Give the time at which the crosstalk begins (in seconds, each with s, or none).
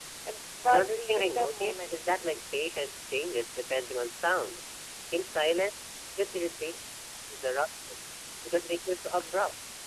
0.7 s